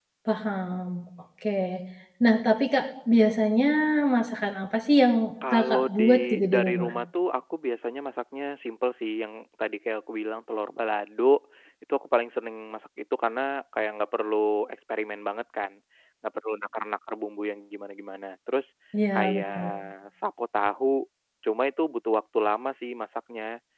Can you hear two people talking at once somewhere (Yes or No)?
Yes